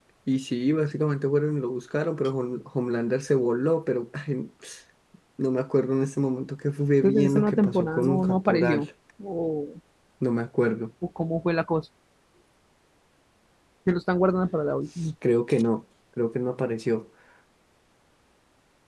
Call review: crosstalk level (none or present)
present